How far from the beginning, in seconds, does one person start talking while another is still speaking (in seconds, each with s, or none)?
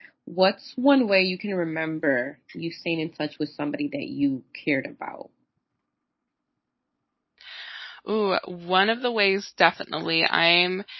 none